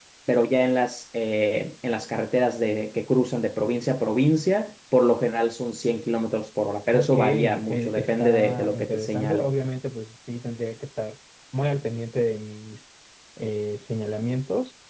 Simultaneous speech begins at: 6.9 s

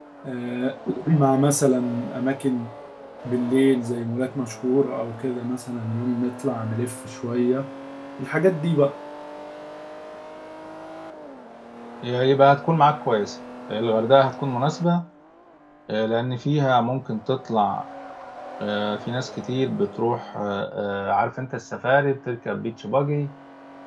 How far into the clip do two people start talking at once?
none

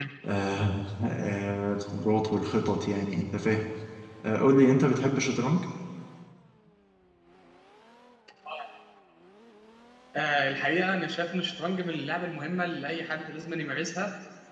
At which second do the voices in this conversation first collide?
none

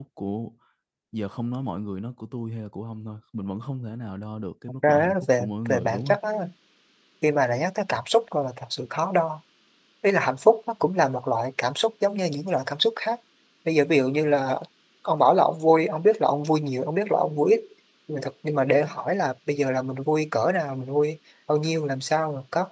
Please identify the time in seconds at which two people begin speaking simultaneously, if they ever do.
4.8 s

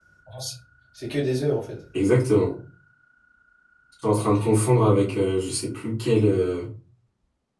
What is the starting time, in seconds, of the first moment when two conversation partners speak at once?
none

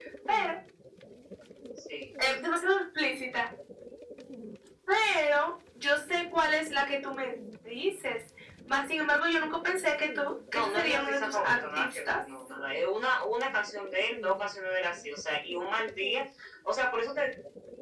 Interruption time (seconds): 10.5 s

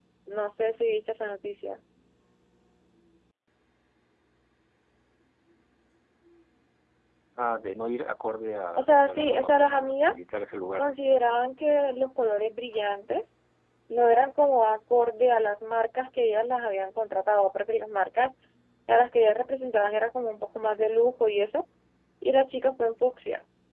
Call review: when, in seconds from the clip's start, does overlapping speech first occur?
8.7 s

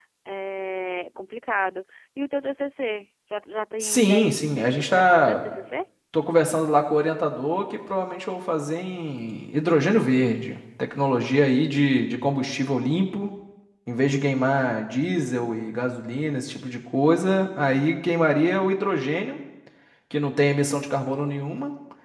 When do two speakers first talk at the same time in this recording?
3.8 s

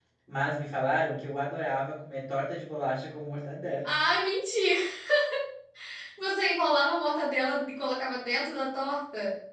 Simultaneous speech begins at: none

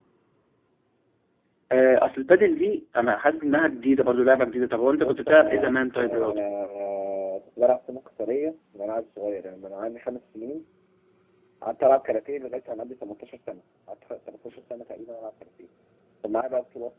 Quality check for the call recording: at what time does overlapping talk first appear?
5.0 s

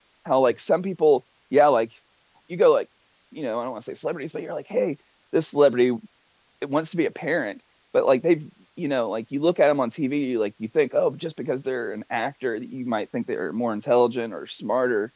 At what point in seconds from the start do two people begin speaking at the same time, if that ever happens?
none

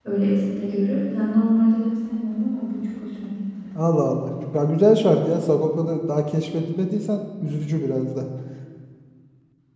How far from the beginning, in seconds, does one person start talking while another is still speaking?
none

